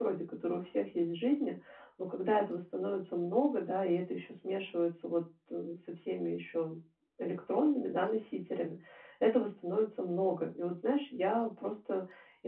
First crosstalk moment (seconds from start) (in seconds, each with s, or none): none